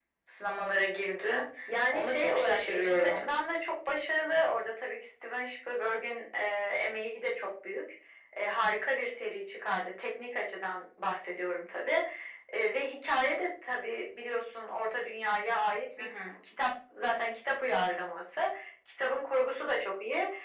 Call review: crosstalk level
present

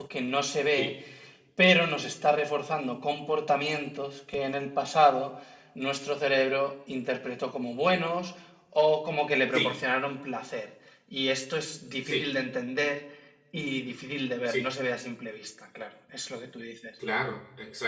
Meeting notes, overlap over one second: none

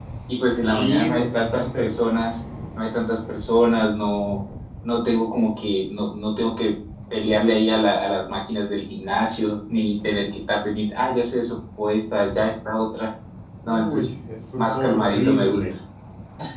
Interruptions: present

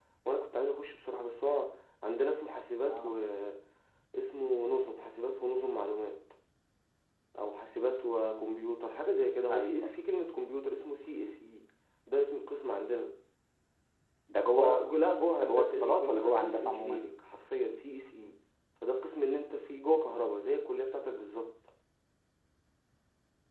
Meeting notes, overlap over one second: present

